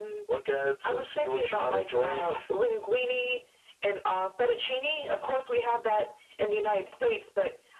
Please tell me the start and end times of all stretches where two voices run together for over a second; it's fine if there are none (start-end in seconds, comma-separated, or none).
0.8-2.3